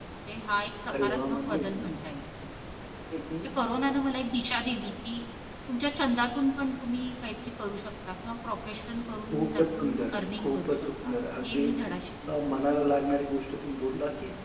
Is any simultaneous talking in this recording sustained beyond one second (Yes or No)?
Yes